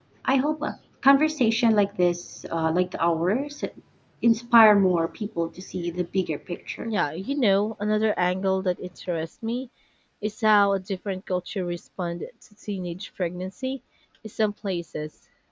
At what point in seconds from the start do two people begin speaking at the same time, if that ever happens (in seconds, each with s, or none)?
none